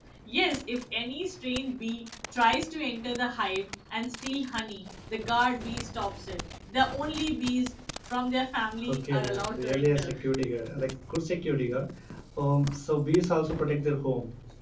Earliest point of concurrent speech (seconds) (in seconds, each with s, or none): 8.8 s